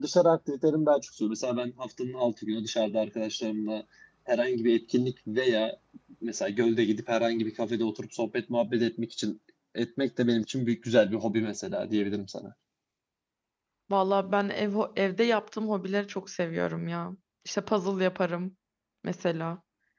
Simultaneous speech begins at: none

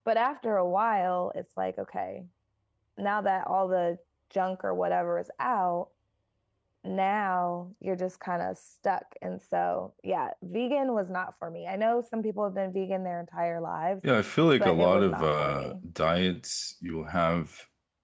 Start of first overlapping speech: 14.6 s

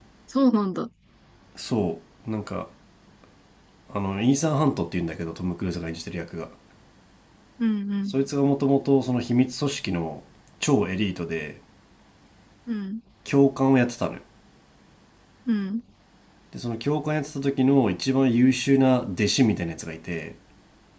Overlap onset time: none

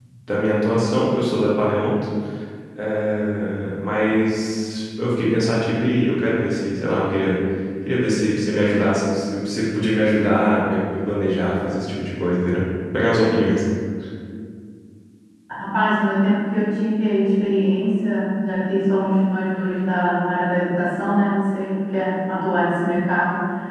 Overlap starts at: none

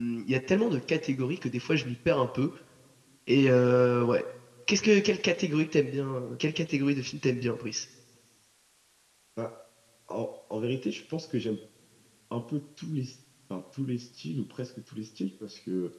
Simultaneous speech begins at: none

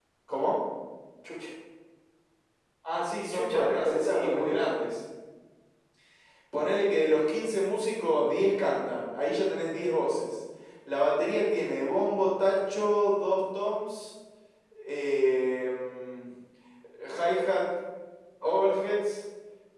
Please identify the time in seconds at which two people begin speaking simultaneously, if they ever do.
3.3 s

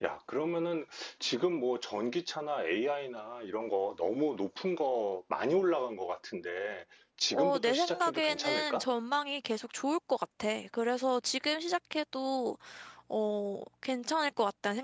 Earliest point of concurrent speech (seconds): 7.3 s

